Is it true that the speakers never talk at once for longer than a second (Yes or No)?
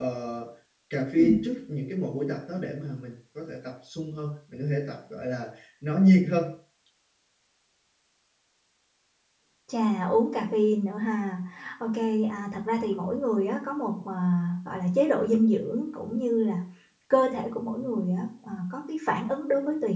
Yes